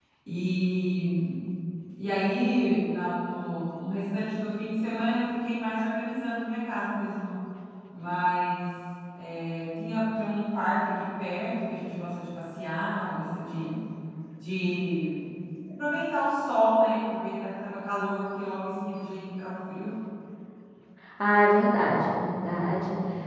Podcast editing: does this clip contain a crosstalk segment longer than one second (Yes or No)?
No